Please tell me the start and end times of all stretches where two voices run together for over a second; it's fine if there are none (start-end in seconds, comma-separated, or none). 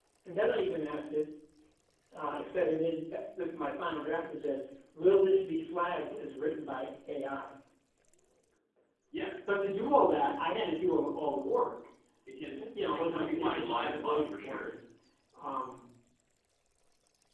12.6-14.7